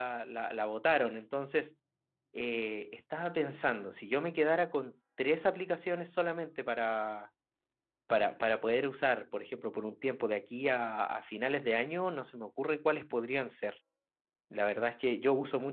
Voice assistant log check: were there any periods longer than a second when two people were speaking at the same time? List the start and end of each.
none

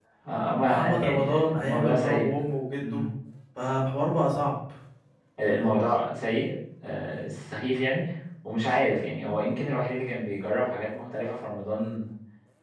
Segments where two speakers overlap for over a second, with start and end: 0.6-2.3

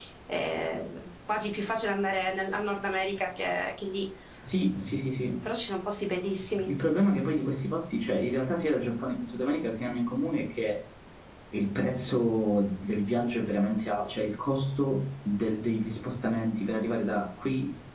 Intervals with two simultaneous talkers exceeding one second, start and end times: none

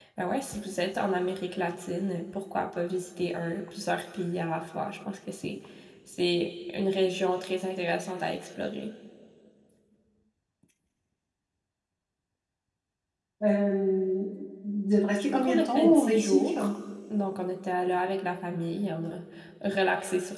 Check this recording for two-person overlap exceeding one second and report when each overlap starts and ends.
15.3-16.5

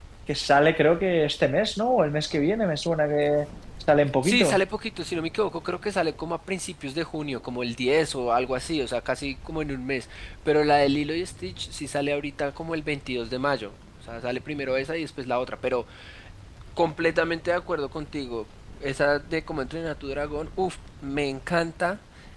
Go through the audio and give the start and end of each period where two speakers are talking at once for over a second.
none

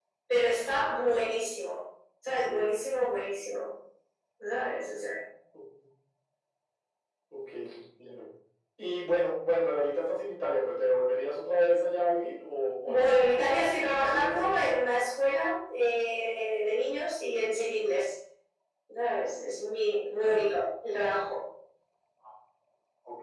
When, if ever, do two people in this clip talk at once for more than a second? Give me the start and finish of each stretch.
12.8-14.7

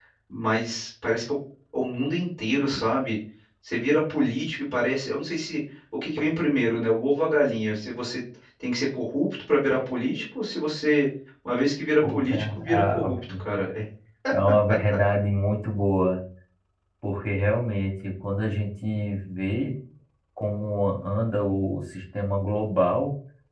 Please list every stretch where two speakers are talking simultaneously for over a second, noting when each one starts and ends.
12.1-13.3

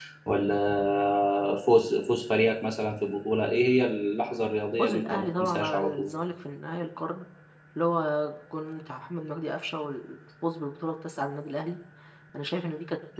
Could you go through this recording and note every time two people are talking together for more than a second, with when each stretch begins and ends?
4.8-6.1

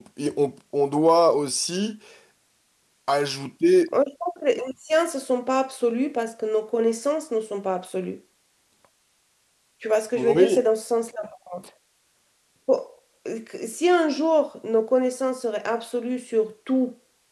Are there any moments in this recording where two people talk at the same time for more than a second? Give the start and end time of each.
none

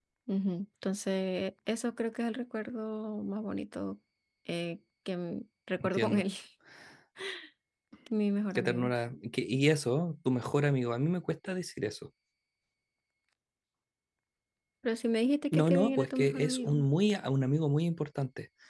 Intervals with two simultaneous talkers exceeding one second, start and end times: 15.5-16.8

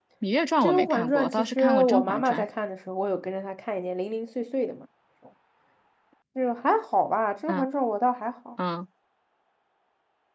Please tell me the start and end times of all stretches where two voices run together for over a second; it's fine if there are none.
0.6-2.4

